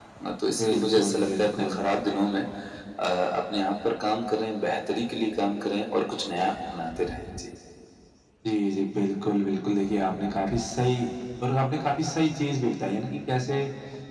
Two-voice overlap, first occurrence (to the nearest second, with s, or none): 1 s